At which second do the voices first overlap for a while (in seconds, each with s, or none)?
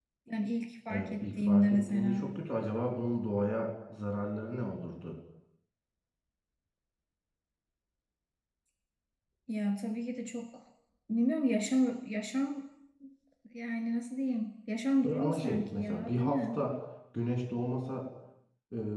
0.9 s